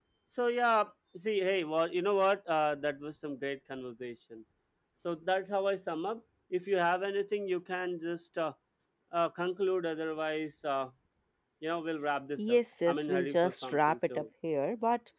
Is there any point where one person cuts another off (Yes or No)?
Yes